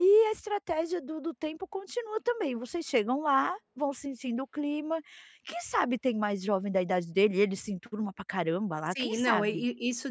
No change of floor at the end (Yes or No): No